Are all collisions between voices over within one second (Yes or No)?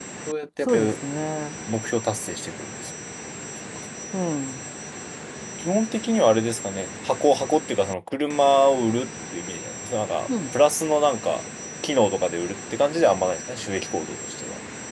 Yes